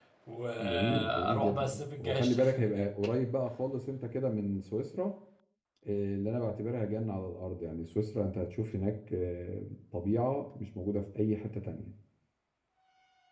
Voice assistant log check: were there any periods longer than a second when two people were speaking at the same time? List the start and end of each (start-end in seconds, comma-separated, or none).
0.6-2.9